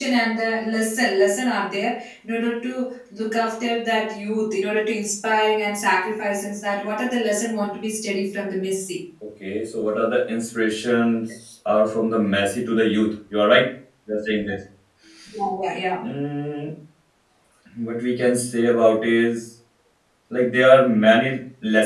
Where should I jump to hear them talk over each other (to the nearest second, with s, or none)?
none